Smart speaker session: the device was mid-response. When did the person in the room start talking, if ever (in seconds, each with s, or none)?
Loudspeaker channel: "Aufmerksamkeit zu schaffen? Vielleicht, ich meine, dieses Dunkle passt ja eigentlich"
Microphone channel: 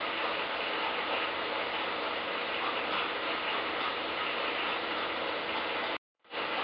none